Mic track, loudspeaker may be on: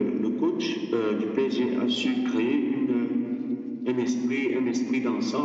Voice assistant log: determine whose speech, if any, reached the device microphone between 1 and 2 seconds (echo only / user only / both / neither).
echo only